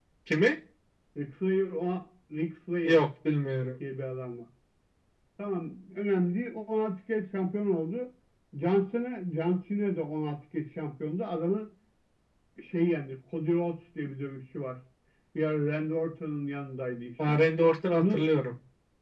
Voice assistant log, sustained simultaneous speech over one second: none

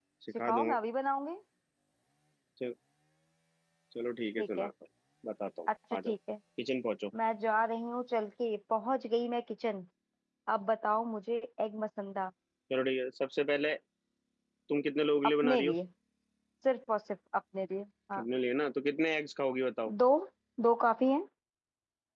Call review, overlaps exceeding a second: none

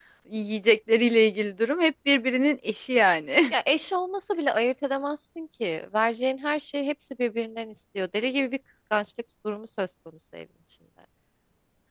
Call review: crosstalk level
none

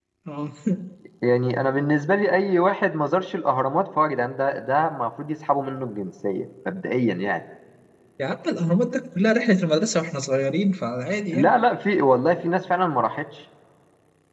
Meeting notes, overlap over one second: none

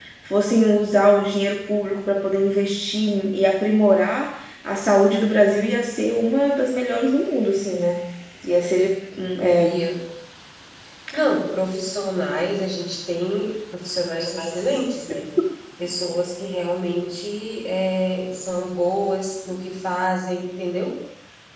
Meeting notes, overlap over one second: none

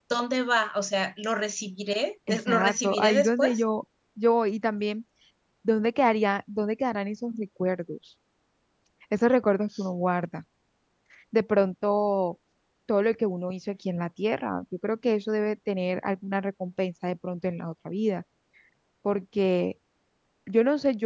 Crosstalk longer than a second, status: present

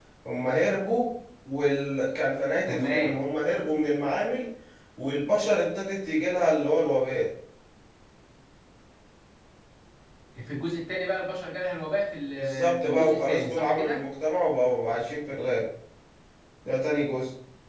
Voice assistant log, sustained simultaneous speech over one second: present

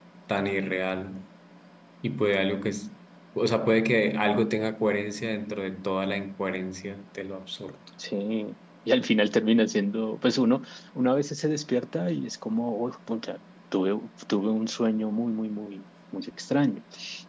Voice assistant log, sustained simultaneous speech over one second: none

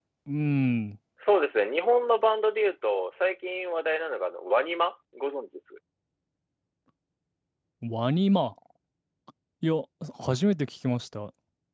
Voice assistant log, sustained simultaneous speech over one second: none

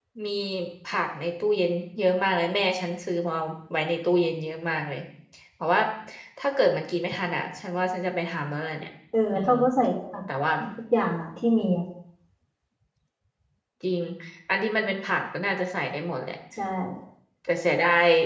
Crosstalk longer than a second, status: none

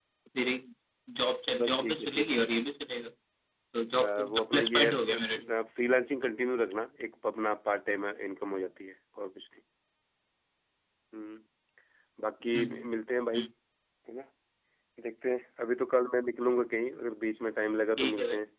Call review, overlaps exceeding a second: present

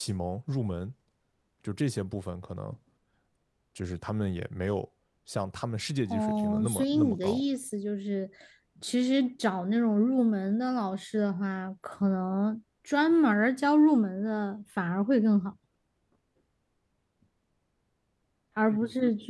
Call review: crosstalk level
present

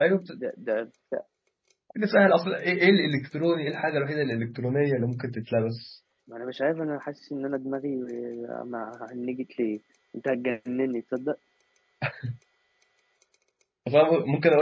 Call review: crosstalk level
none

